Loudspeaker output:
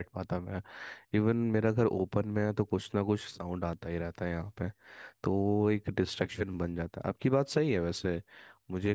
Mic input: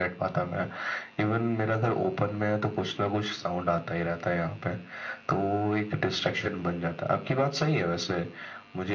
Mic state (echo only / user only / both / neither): echo only